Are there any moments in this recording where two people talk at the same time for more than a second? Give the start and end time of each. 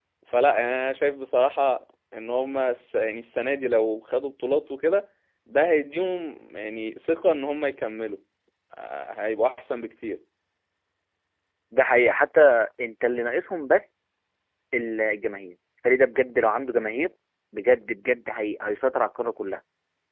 none

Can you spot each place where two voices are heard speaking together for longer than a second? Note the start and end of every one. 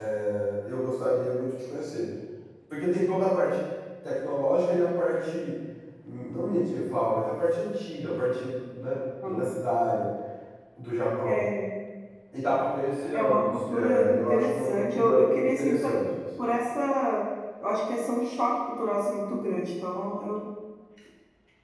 13.1-16.0

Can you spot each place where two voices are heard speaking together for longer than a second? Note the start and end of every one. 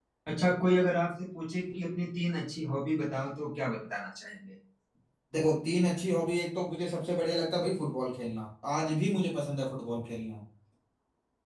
none

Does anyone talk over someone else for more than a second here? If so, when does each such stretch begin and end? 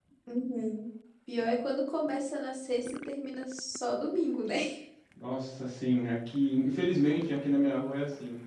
none

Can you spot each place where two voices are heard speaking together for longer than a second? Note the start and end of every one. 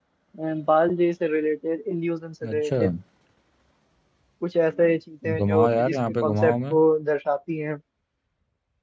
5.4-6.7

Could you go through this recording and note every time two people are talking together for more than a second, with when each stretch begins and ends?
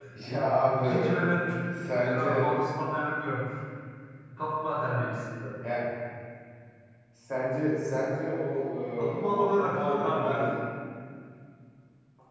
9.2-10.5

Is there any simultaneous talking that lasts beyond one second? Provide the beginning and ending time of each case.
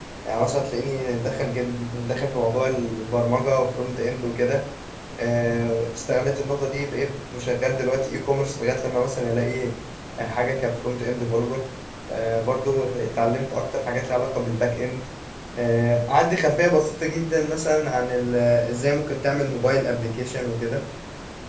none

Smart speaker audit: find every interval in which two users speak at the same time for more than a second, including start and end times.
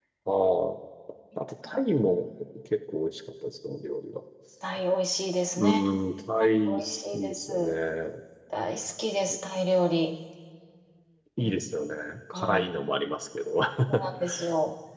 6.4-7.8

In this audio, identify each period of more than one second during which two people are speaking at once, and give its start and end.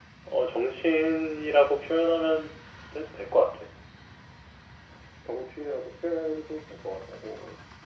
none

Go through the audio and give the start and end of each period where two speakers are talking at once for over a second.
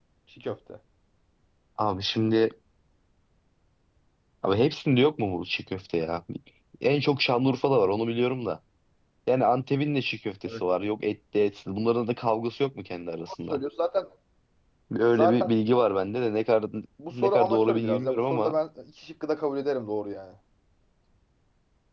17.1-18.6

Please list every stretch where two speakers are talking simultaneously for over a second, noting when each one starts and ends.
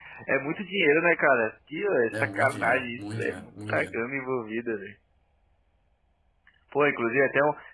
2.1-4.0

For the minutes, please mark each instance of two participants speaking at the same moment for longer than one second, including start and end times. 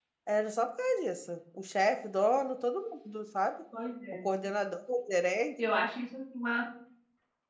none

